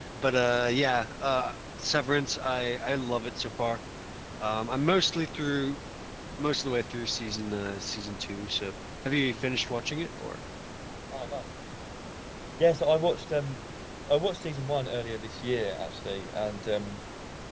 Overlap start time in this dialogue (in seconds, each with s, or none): none